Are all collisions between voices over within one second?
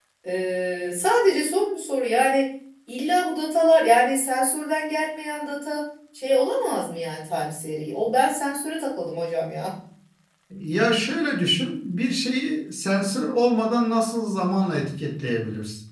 Yes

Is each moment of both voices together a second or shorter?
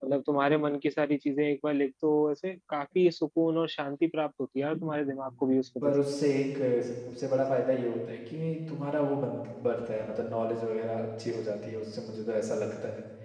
Yes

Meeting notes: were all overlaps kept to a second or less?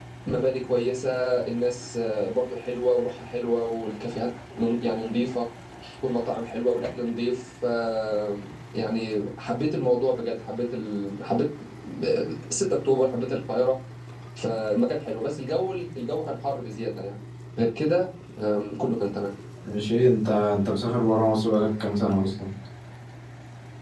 Yes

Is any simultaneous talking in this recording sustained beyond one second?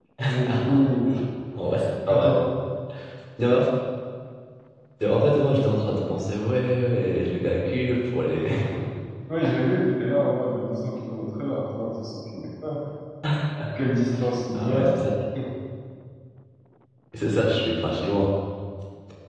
No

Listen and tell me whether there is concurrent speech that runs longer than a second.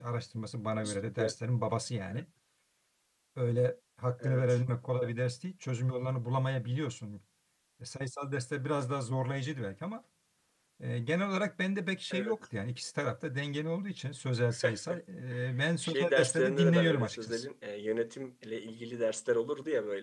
Yes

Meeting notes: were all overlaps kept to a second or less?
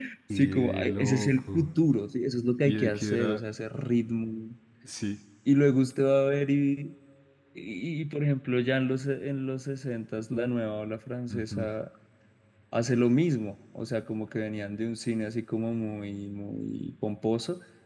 No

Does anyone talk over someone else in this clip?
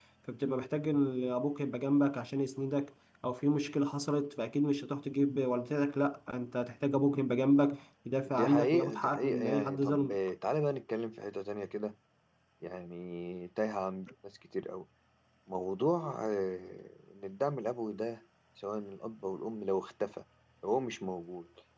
Yes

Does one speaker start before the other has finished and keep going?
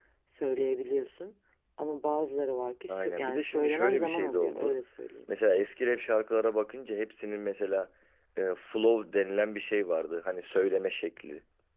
Yes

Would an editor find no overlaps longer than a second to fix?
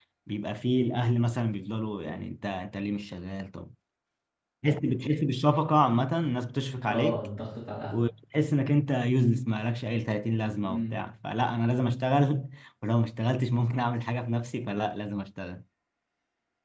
Yes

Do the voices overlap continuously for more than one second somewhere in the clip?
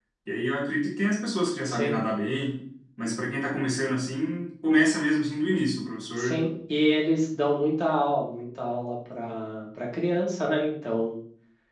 No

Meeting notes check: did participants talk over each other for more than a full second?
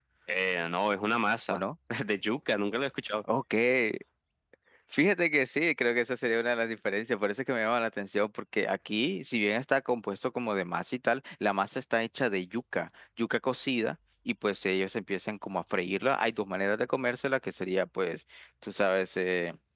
No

